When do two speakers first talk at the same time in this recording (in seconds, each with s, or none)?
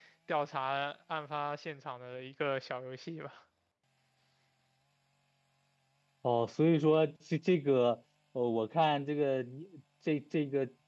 none